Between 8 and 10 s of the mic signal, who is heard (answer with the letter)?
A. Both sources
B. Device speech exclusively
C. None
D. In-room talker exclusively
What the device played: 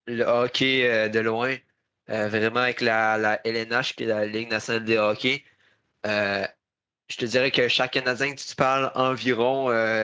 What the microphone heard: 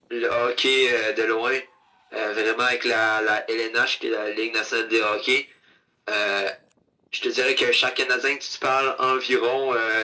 B